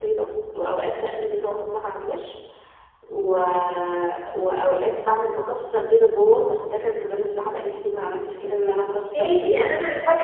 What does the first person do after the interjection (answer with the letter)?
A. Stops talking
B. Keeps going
A